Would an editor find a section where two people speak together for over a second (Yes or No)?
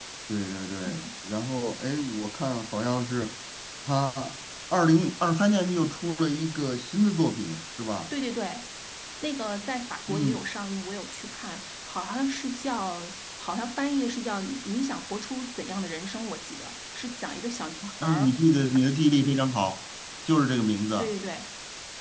No